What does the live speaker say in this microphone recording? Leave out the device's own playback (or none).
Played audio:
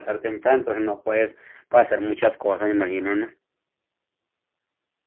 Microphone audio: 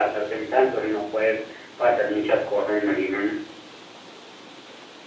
none